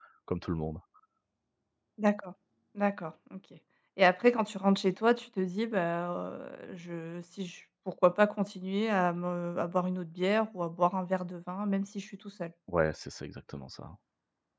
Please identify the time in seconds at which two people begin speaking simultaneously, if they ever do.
none

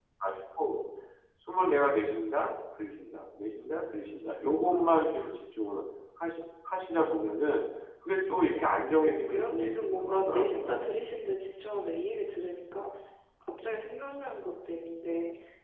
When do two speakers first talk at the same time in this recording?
9 s

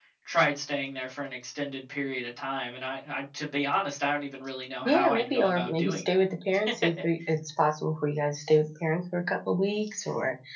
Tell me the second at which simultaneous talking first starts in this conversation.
5 s

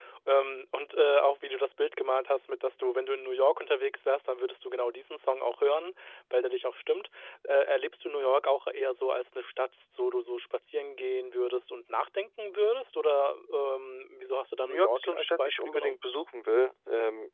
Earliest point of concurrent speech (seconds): 15 s

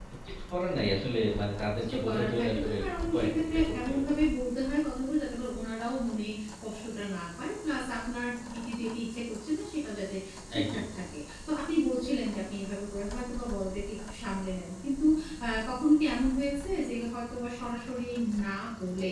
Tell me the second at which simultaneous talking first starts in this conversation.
2 s

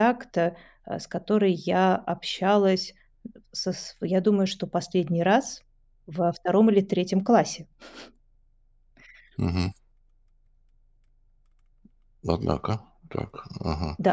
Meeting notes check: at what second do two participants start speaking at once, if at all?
none

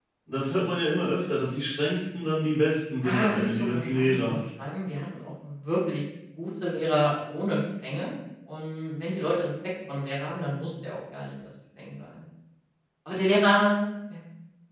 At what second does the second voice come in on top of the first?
3 s

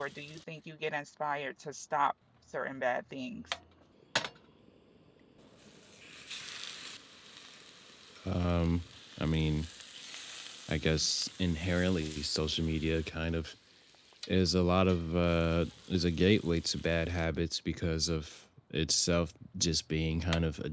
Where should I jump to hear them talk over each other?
none

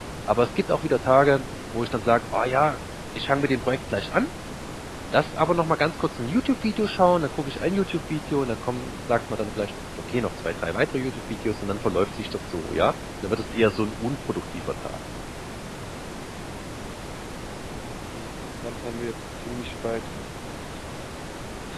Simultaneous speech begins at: none

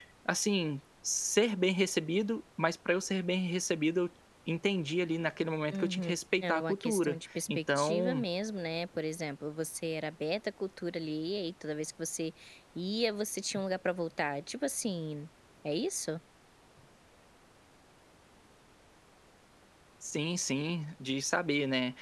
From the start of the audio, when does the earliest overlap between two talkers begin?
6 s

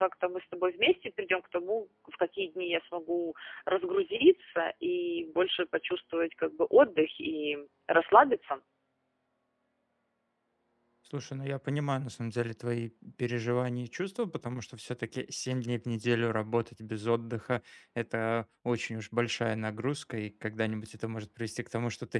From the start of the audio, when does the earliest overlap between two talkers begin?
none

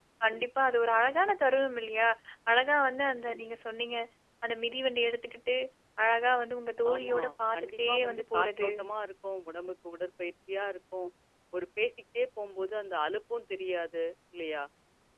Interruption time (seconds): 7 s

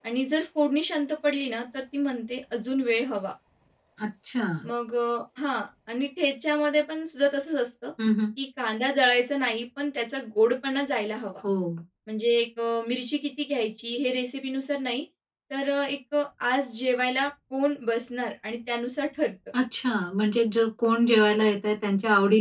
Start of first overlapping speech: none

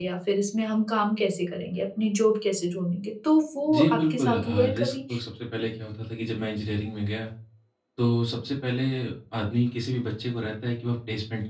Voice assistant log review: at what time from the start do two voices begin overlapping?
4 s

